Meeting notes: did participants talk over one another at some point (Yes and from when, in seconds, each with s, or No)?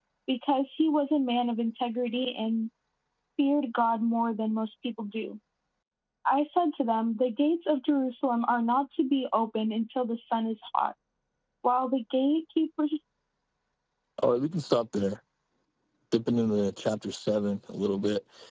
No